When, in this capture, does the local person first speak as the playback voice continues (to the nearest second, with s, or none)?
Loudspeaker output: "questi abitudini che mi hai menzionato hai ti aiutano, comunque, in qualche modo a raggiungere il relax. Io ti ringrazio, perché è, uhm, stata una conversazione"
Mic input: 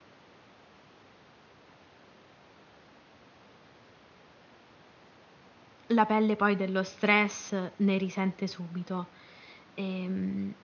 6 s